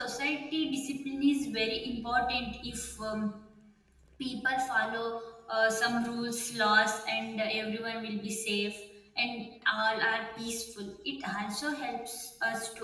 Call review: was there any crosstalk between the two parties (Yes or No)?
No